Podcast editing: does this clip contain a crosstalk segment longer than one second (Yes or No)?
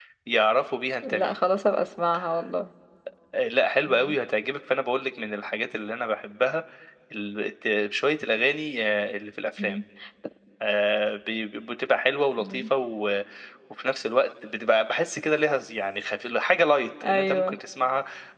No